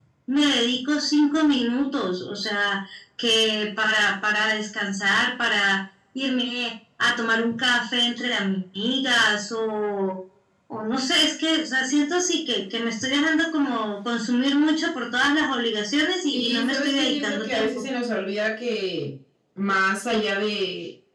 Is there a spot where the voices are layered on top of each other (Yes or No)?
Yes